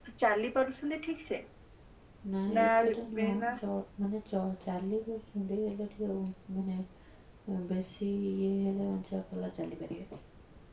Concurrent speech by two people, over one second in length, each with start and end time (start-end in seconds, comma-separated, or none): none